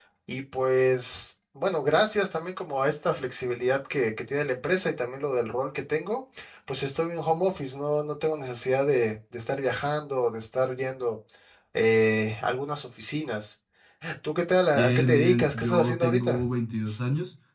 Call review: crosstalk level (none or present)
present